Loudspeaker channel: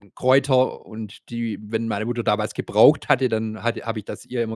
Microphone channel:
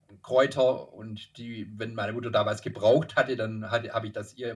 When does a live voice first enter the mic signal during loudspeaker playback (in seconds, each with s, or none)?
none